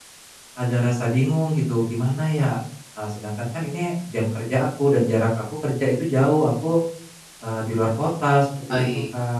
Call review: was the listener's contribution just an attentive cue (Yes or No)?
No